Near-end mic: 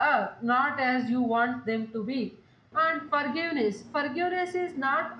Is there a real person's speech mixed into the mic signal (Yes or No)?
No